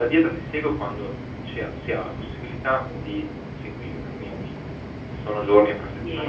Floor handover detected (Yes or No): Yes